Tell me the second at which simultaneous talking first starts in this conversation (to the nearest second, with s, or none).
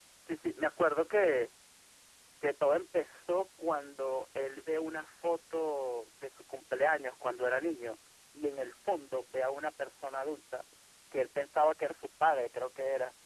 none